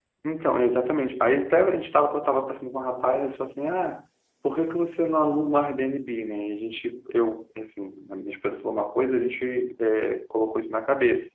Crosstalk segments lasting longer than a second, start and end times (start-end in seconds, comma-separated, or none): none